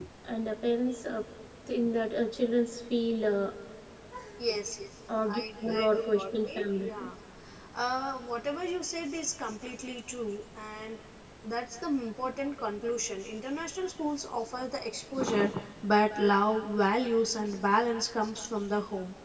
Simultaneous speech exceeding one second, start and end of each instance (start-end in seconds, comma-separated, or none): 5.8-7.1